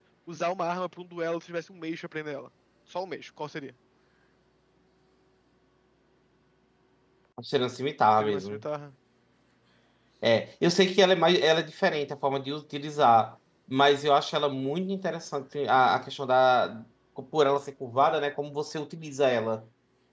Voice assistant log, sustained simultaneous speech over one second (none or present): none